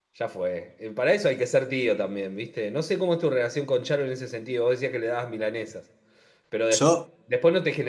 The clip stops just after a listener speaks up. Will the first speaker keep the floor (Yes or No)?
Yes